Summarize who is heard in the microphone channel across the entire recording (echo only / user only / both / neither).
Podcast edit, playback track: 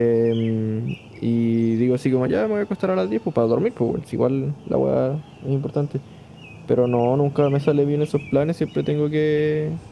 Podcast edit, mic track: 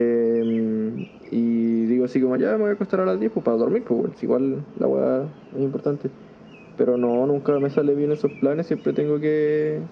echo only